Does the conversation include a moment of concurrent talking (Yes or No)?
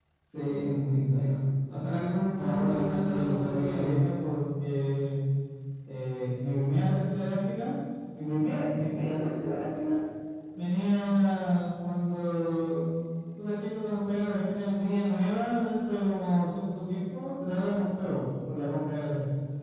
Yes